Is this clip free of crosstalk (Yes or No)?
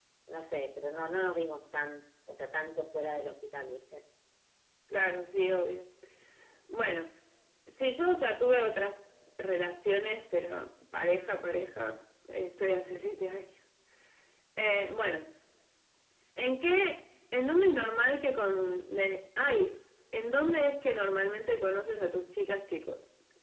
Yes